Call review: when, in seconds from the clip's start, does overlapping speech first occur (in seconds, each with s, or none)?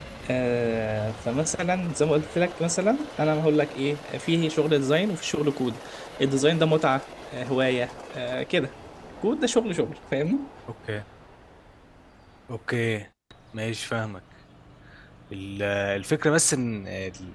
none